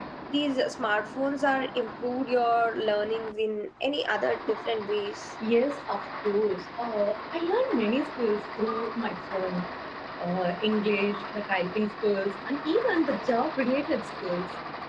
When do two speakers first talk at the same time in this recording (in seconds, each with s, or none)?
none